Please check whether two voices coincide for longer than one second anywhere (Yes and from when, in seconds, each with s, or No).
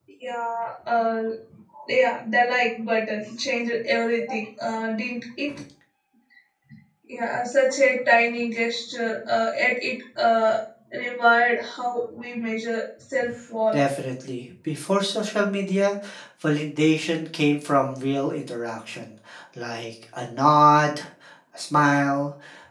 No